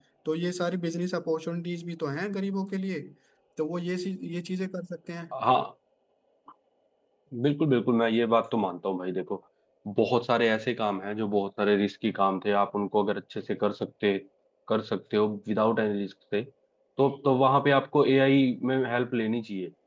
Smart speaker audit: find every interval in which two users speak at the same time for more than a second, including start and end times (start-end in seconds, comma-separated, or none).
none